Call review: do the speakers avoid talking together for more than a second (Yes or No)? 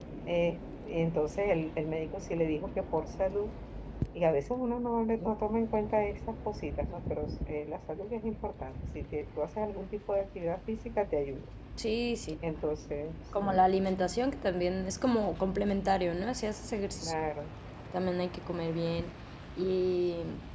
Yes